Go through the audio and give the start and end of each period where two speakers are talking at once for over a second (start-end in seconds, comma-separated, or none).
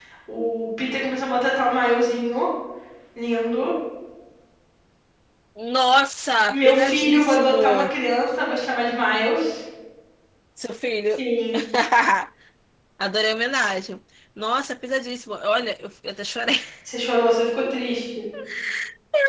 6.5-7.8